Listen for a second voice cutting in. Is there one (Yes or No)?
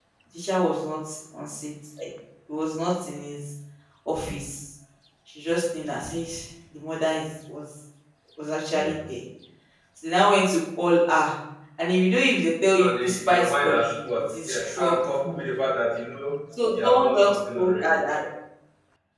Yes